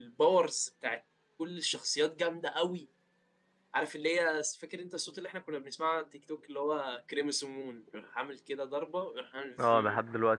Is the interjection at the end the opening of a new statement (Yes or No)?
Yes